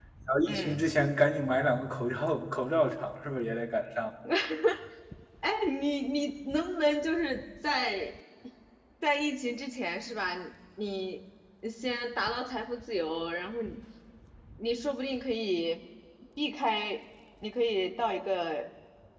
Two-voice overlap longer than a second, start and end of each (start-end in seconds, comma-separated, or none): none